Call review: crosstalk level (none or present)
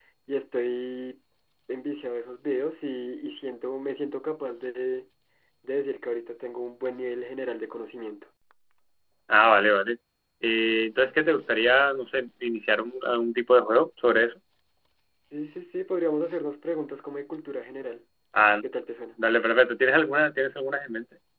none